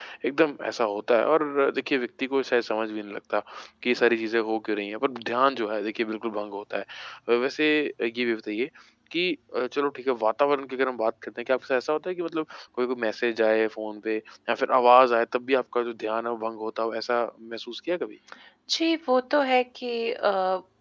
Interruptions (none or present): none